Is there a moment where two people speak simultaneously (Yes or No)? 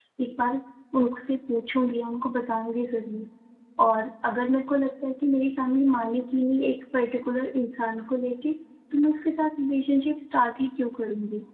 No